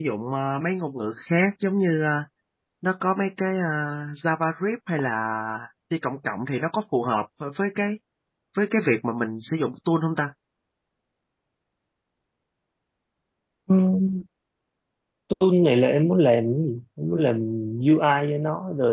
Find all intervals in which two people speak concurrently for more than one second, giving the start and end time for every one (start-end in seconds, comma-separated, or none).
none